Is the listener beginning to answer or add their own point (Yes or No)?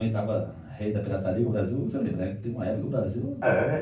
Yes